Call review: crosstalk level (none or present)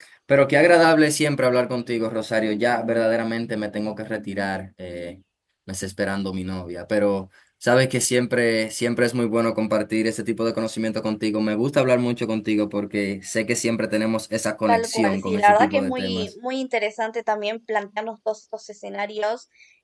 present